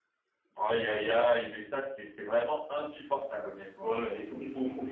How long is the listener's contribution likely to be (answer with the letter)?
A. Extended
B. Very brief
A